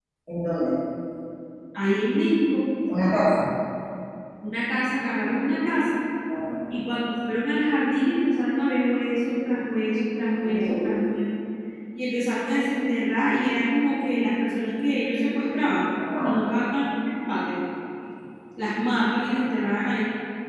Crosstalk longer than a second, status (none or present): none